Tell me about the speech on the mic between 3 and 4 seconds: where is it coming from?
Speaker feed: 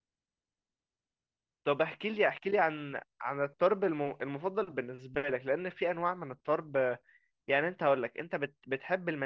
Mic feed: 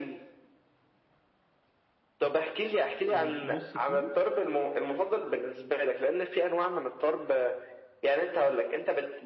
both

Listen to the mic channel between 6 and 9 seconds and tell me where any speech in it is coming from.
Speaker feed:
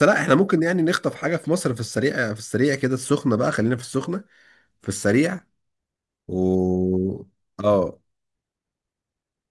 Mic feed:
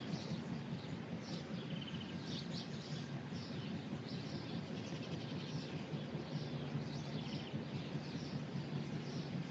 neither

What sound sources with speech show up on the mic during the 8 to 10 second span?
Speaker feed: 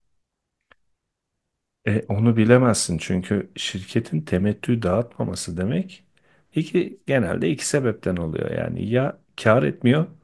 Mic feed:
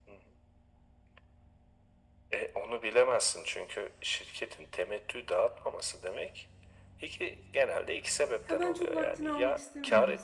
both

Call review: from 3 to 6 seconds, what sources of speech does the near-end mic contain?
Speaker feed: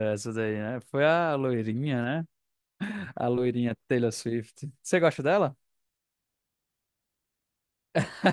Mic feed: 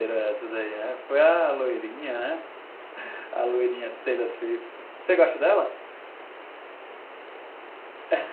echo only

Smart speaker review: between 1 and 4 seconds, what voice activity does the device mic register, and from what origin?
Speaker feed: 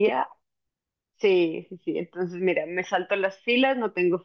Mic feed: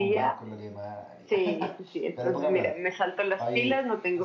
both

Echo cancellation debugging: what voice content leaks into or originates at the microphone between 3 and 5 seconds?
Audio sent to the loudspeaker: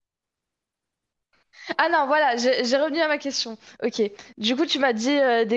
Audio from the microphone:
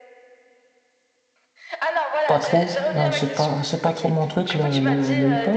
both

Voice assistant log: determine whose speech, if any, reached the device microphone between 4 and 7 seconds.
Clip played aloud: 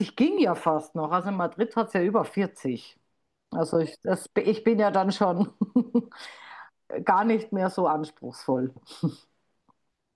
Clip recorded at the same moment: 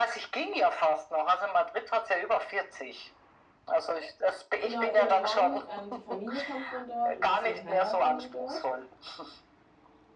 both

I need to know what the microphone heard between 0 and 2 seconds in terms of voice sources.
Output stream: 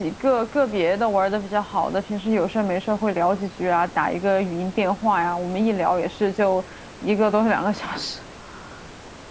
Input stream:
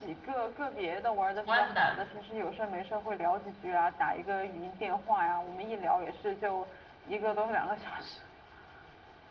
both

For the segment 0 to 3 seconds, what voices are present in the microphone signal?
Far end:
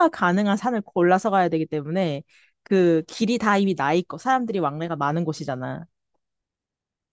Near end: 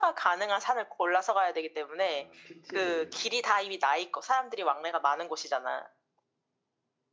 both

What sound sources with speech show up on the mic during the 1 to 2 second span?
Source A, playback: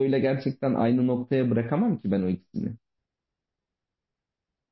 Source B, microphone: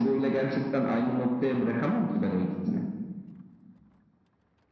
echo only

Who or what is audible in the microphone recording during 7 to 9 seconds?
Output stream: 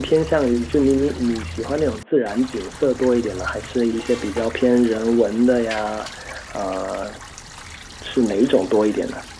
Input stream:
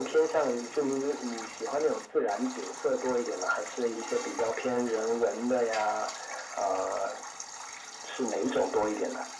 echo only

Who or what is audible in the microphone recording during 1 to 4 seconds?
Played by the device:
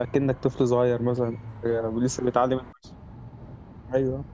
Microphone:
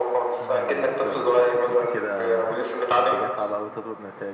both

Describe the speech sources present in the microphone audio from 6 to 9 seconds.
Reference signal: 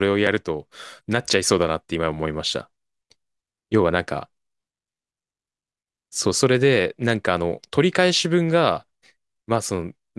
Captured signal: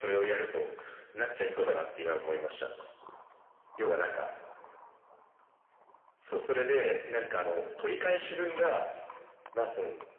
echo only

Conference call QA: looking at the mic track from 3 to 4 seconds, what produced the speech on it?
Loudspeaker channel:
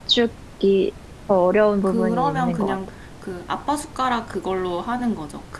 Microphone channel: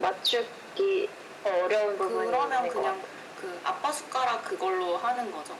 echo only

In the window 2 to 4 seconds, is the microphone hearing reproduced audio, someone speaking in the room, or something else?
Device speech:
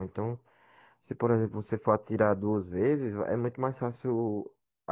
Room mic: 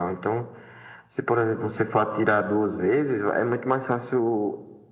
echo only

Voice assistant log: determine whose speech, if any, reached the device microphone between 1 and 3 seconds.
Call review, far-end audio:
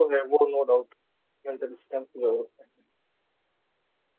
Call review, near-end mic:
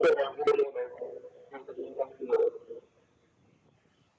echo only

